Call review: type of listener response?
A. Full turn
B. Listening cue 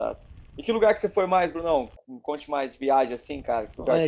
A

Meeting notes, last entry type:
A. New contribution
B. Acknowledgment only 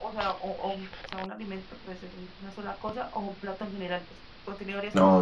A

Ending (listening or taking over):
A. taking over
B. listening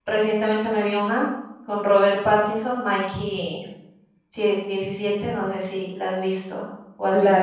A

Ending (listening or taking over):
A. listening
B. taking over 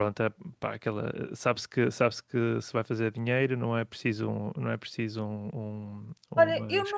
B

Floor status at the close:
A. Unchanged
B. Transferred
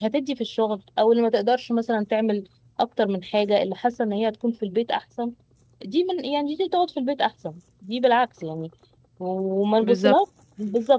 A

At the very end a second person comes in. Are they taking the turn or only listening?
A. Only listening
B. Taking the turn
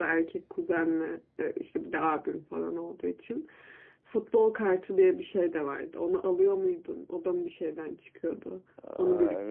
B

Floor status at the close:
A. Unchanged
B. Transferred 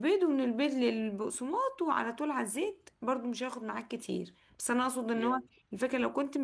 A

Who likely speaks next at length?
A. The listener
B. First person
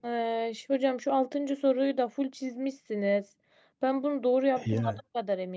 B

